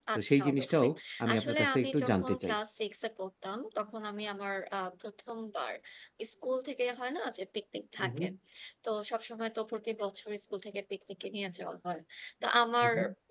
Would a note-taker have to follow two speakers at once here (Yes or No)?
Yes